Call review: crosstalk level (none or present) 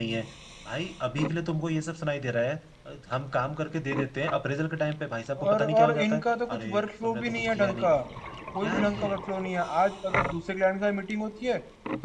present